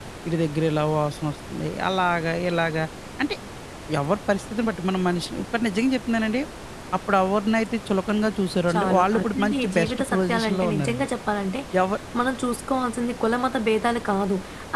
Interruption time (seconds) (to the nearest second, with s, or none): 9 s